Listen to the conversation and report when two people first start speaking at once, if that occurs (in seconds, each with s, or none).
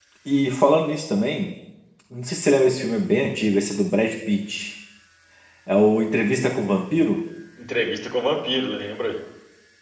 none